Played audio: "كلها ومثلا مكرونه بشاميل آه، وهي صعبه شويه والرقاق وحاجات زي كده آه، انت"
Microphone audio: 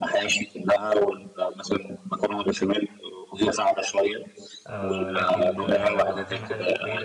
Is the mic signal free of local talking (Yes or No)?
No